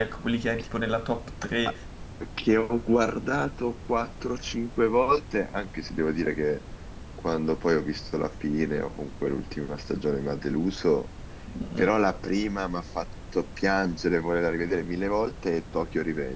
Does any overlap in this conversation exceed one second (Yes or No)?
No